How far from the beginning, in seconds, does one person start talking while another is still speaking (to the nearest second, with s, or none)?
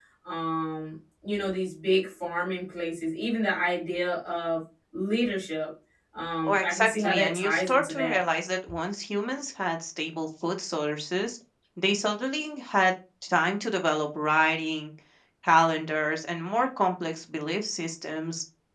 6 s